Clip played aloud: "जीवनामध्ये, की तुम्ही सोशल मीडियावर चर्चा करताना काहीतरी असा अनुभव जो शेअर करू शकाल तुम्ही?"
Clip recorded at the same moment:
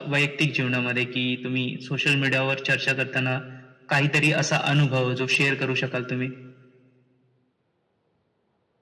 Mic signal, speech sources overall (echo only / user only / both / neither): echo only